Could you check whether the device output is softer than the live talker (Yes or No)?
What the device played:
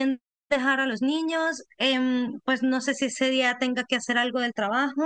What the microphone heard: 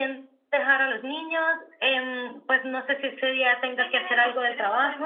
No